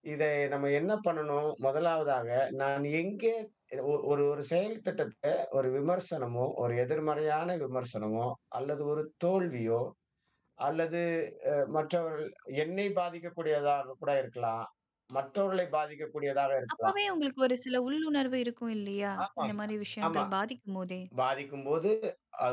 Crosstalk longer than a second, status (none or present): none